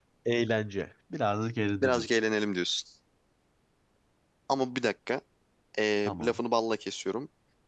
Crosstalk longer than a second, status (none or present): none